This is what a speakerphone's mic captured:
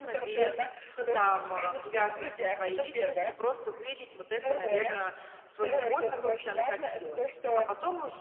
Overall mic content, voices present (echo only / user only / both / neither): both